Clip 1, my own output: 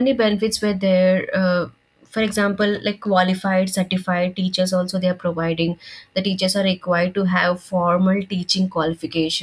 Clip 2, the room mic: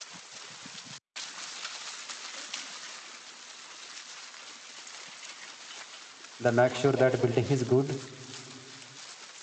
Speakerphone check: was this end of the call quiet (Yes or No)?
No